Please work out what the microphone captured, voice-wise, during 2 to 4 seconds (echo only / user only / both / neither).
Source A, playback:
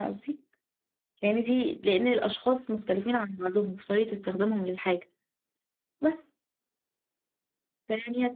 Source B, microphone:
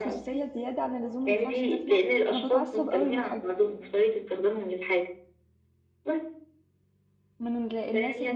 both